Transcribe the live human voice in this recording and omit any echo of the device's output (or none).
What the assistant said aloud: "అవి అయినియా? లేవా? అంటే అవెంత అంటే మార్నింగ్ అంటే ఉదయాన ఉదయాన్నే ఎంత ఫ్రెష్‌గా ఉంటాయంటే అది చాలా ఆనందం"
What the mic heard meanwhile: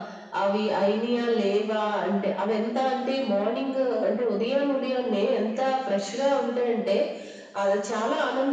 none